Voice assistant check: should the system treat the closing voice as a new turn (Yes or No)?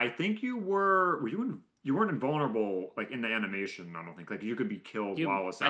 Yes